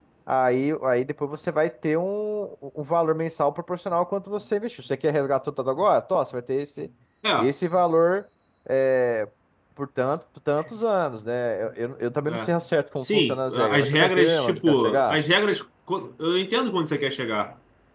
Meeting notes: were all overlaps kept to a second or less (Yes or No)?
No